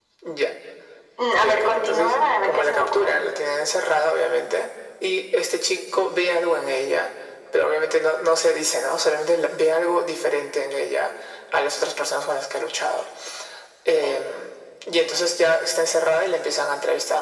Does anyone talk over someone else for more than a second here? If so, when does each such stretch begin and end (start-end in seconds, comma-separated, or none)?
1.3-3.2